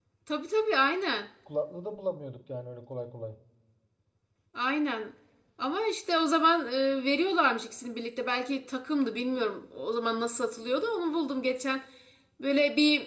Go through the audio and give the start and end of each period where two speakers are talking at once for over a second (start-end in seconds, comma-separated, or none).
none